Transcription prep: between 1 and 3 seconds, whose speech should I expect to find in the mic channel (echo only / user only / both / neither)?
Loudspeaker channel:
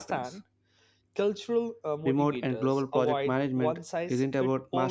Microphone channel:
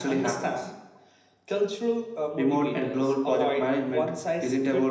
echo only